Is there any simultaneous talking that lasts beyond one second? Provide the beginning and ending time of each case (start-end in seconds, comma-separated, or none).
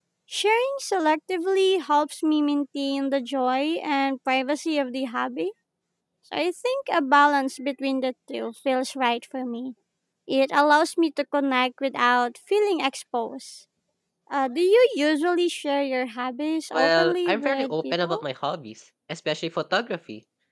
16.7-18.2